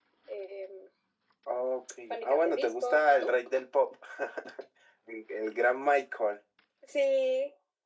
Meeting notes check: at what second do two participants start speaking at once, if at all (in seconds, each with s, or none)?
2.1 s